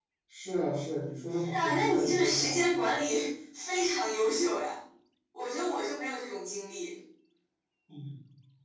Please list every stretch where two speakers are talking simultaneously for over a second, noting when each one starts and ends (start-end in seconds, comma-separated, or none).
1.5-2.9